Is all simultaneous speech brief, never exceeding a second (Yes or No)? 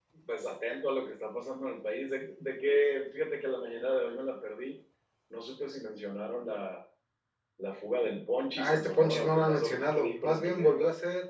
No